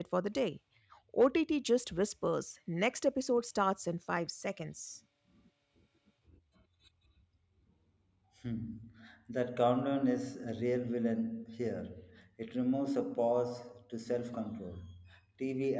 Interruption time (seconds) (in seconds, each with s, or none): none